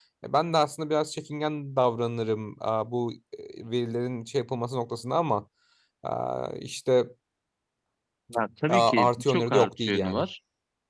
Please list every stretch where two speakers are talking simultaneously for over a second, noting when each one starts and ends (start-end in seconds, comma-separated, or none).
8.7-10.2